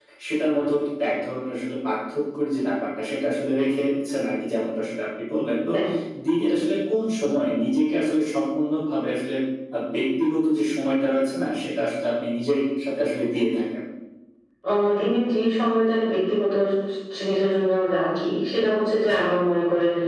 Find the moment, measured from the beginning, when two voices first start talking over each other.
none

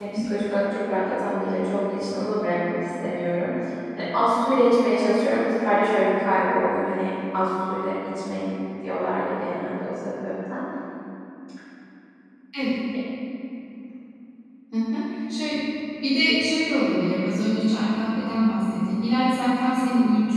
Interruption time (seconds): none

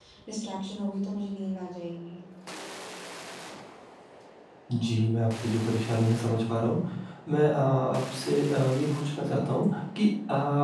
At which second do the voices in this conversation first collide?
none

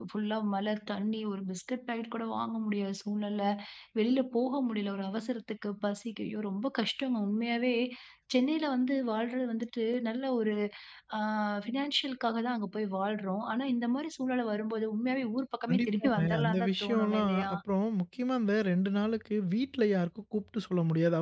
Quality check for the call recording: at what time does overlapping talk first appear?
15.7 s

